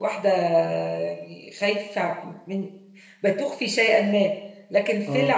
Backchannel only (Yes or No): Yes